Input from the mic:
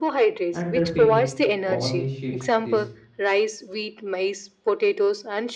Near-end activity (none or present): present